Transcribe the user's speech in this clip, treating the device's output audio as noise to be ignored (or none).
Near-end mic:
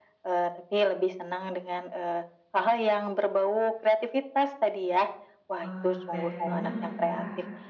Wah, kreatif banget ya Kak.